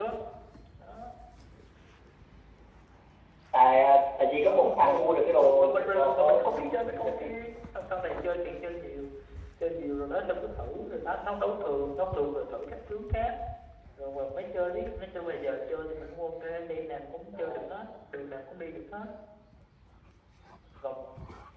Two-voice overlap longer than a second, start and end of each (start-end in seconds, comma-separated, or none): 4.3-6.5